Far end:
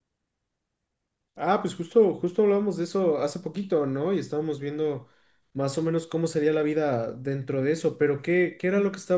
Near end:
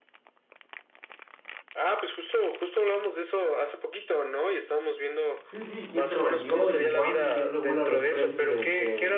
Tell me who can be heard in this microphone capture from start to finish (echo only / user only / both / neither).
both